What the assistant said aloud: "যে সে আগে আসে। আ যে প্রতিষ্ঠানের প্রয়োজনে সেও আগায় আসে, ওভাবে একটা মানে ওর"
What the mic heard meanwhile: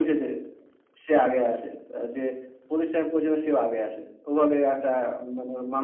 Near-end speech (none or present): none